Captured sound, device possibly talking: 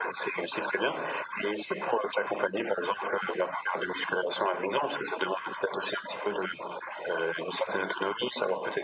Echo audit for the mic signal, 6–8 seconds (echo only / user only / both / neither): echo only